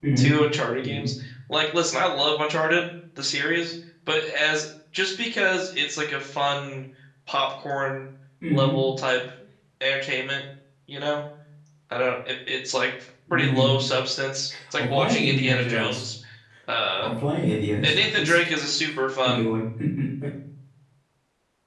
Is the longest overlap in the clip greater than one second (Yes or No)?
Yes